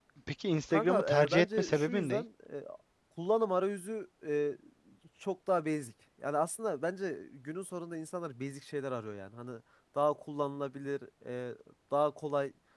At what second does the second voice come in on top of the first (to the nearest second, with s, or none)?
1 s